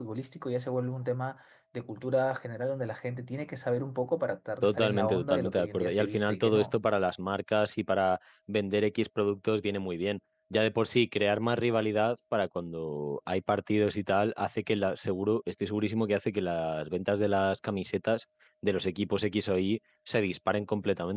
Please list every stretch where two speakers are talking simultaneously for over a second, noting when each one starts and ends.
4.6-6.7

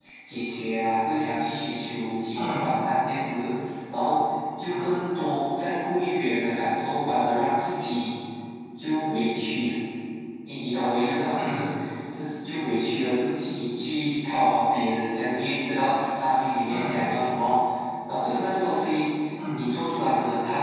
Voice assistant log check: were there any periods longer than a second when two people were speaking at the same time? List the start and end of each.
none

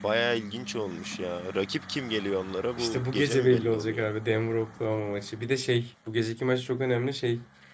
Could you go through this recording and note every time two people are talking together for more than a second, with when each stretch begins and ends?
2.8-4.1

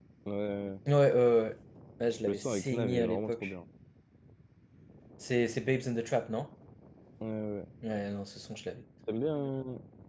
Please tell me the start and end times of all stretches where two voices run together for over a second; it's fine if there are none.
2.3-3.5

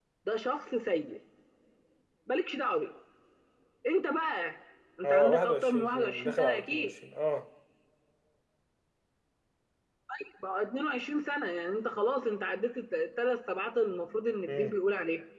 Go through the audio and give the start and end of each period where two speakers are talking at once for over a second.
5.0-6.9

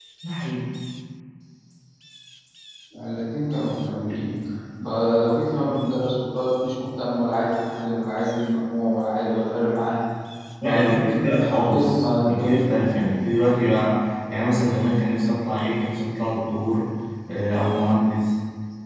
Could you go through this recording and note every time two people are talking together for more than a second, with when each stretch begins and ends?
10.6-12.6

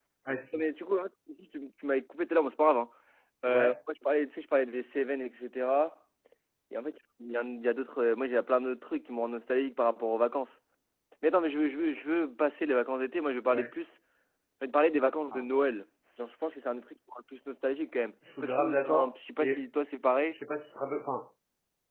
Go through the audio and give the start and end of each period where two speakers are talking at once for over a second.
18.4-19.6

